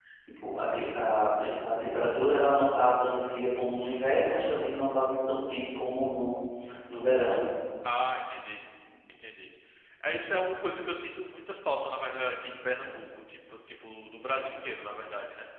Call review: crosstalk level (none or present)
none